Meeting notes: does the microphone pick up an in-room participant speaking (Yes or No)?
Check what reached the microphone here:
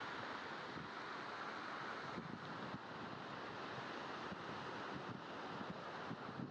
No